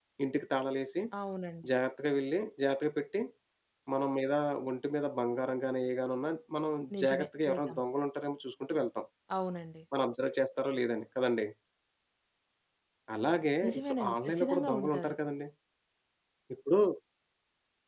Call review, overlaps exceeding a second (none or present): present